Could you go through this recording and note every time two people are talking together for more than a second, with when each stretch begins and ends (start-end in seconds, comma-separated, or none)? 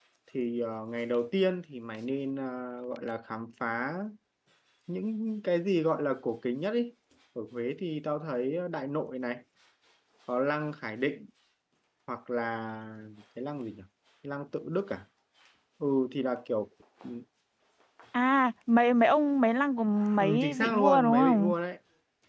20.2-21.5